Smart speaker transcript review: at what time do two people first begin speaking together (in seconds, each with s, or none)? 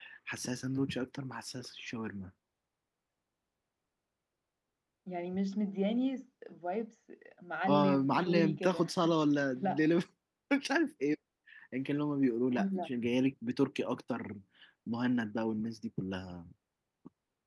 7.7 s